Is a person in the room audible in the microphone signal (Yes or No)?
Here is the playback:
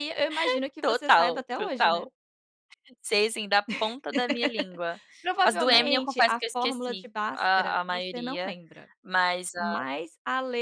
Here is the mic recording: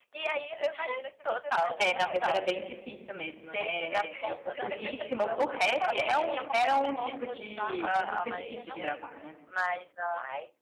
Yes